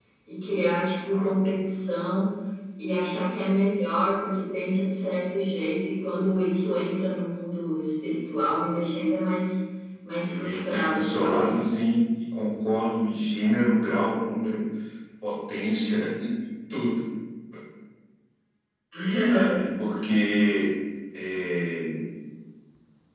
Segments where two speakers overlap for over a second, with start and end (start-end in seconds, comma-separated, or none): 10.2-11.6